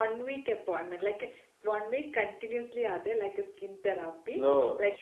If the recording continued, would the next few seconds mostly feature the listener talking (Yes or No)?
No